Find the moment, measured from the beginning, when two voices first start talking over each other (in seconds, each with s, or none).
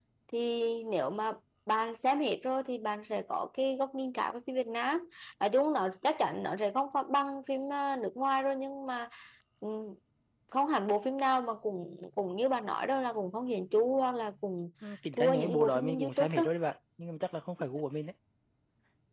15.1 s